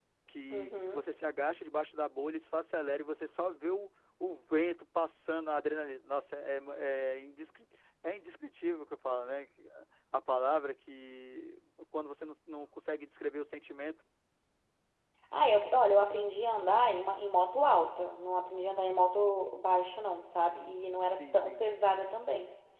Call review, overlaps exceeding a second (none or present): none